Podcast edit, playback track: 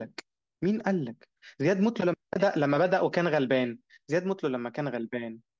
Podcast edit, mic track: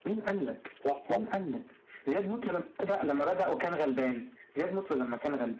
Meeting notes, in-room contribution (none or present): present